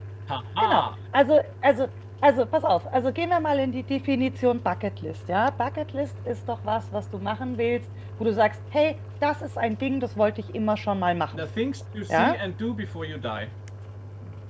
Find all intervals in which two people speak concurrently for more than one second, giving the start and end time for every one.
none

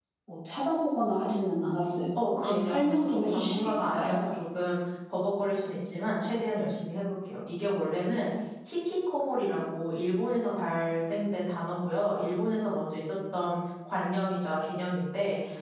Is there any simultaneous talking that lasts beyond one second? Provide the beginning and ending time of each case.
2.4-4.2

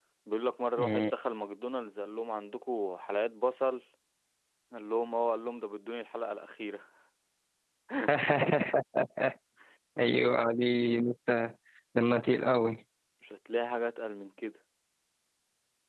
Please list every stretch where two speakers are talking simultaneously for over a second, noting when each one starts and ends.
none

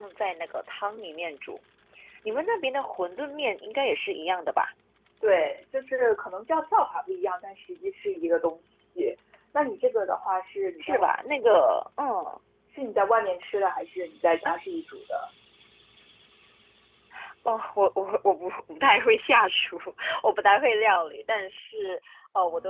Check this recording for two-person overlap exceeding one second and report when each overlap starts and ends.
none

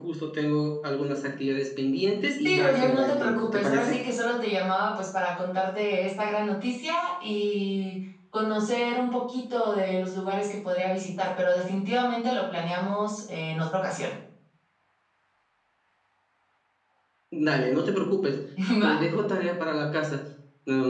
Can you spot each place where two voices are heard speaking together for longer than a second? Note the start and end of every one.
2.4-4.0

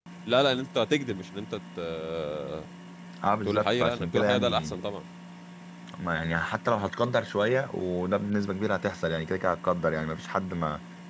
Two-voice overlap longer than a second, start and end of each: 3.5-4.8

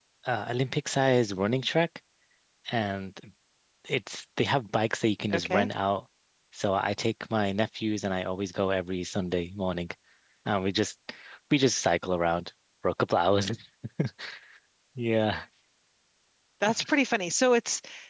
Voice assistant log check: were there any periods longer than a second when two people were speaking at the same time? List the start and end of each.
none

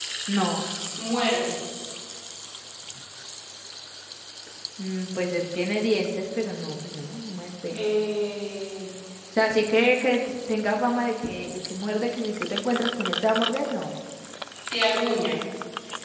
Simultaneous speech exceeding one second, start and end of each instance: none

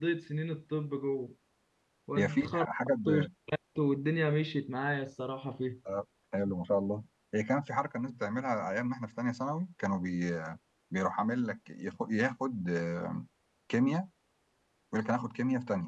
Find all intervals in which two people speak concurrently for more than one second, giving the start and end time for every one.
none

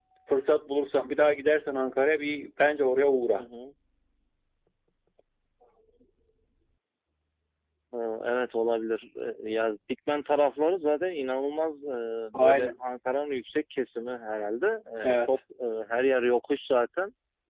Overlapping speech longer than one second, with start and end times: none

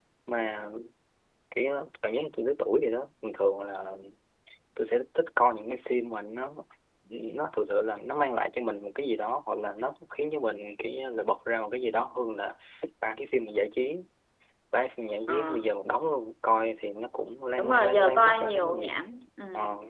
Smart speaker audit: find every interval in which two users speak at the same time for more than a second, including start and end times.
17.6-19.1

